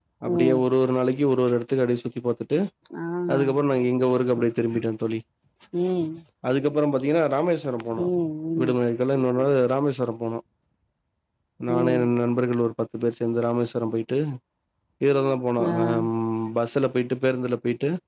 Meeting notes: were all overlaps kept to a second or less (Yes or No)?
Yes